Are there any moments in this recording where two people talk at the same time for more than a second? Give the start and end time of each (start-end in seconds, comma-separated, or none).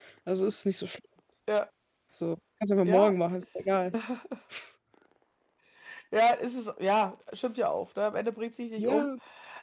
none